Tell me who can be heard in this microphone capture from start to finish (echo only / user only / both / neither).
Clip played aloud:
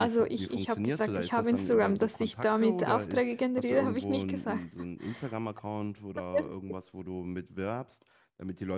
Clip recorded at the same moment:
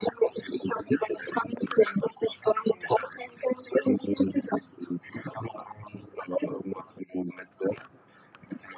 echo only